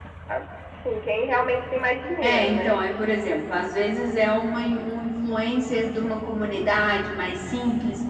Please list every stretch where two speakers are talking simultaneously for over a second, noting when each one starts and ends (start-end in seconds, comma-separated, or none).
none